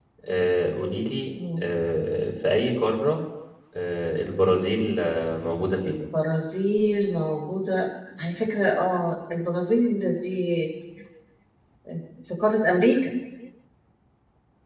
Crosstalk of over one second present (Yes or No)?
No